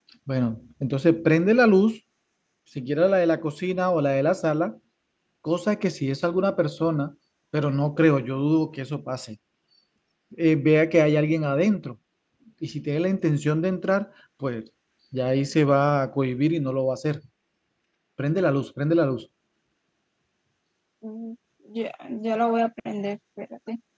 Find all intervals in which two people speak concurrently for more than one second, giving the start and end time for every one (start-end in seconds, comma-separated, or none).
none